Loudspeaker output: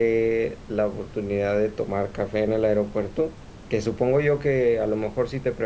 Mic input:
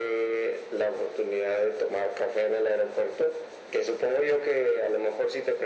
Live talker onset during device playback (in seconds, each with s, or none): none